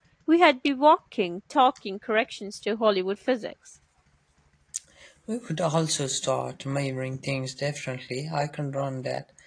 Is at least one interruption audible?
No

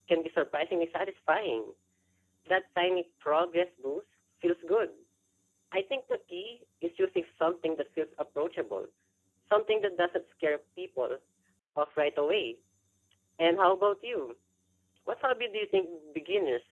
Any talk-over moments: No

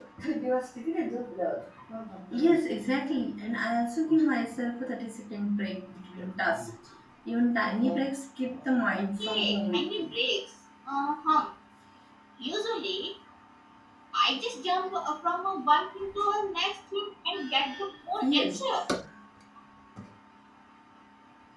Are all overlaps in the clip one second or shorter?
No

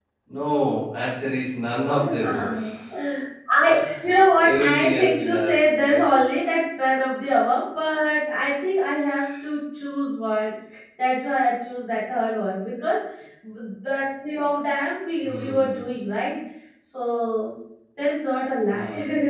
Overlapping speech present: Yes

